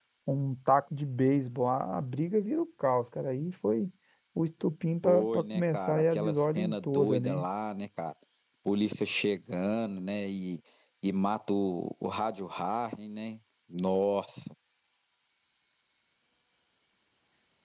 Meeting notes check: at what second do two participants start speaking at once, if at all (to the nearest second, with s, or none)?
5 s